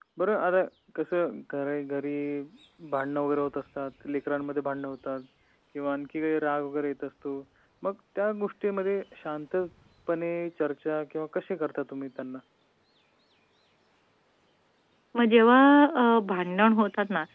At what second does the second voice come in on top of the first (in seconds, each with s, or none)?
none